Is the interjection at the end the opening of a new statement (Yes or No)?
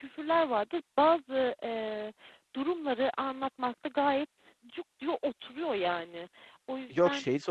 Yes